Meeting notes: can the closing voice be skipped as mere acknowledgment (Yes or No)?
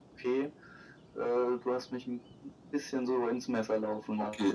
No